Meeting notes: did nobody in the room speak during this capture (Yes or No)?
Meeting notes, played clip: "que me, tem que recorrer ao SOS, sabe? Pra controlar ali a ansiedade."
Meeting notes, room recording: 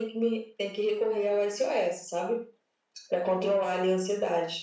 Yes